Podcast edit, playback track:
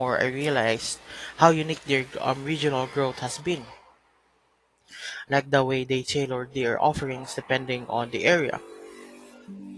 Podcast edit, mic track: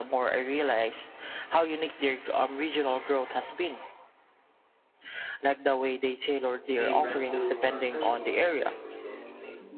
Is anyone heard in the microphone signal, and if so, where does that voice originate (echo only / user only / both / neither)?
both